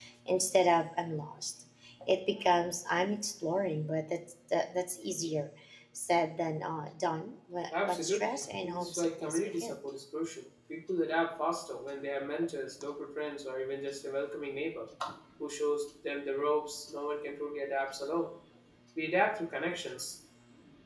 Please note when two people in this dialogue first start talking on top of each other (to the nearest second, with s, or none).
8 s